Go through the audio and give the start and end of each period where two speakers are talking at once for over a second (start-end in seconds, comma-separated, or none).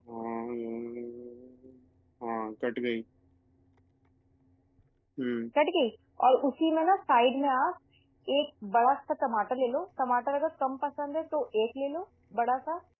none